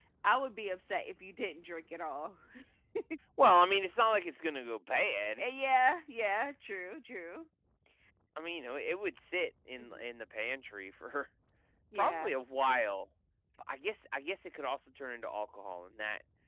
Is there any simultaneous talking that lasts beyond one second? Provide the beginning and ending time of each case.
none

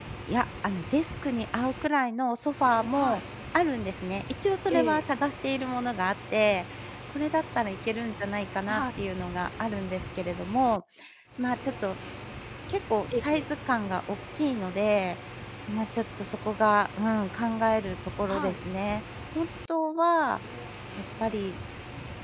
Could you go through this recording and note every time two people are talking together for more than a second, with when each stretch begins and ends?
none

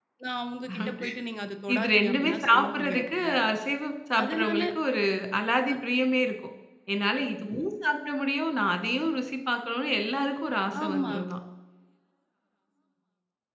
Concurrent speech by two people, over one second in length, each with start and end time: 1.7-3.3

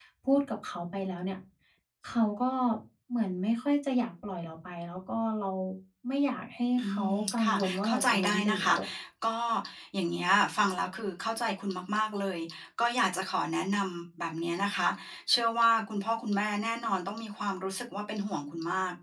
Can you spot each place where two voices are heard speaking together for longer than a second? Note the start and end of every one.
6.8-8.7

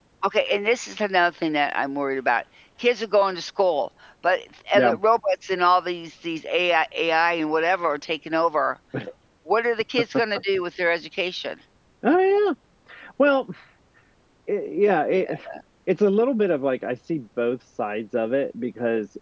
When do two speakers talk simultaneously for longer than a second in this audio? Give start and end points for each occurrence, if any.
none

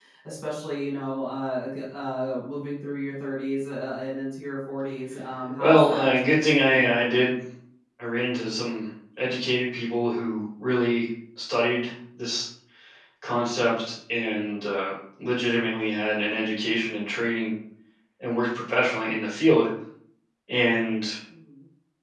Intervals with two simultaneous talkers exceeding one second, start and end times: 5.6-7.0

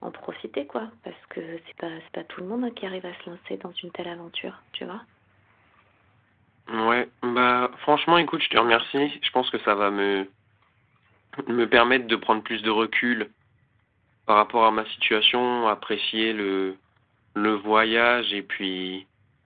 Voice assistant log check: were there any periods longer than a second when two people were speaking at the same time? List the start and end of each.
none

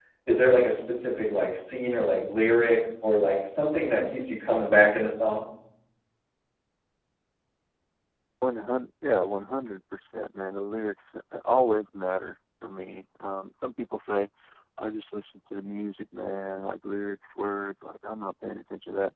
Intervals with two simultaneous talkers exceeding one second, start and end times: none

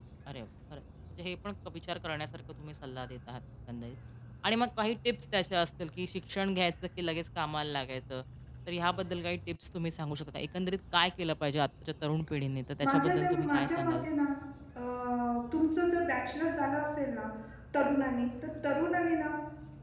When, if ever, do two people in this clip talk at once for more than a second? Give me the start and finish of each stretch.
12.8-14.0

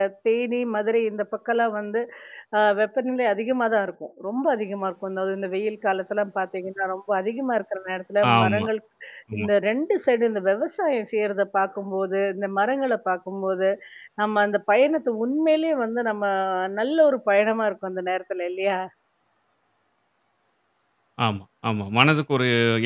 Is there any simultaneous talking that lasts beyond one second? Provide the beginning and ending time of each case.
none

